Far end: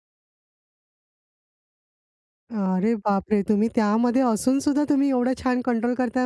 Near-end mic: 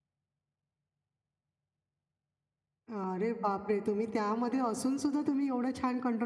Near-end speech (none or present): none